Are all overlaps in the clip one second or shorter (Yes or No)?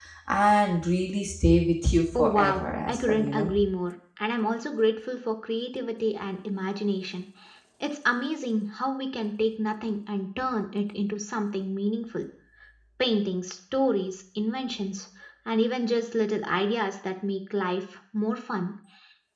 No